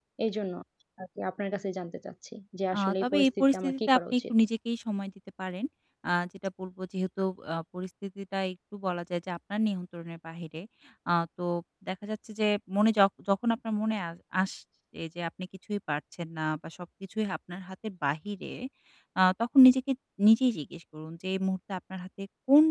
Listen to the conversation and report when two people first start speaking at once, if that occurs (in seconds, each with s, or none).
2.7 s